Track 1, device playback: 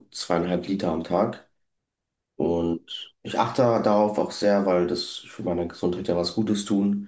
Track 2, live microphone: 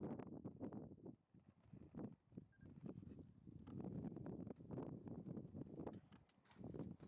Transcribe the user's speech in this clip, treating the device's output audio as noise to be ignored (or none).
none